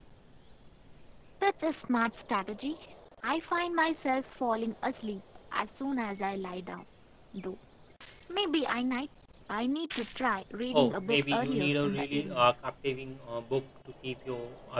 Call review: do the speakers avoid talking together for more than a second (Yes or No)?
No